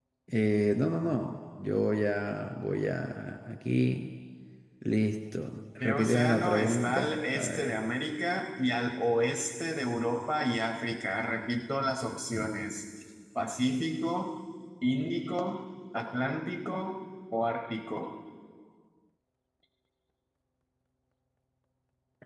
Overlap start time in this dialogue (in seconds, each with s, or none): 5.8 s